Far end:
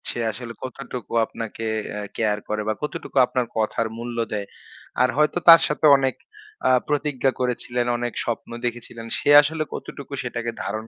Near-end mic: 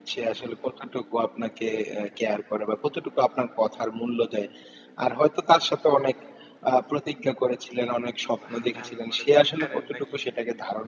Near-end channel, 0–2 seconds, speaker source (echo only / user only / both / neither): echo only